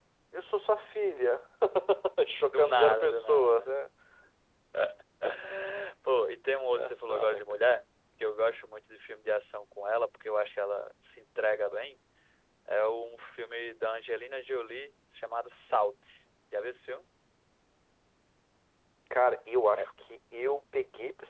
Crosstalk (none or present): present